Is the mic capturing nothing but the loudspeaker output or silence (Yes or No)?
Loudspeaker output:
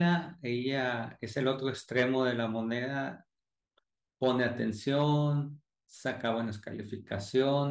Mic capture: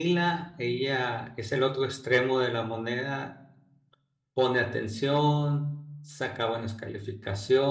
Yes